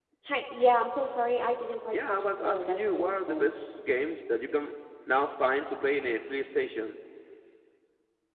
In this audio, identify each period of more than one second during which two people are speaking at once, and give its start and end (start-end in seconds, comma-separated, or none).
1.9-3.4